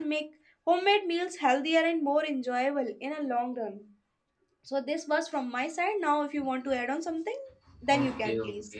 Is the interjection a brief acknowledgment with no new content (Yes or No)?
No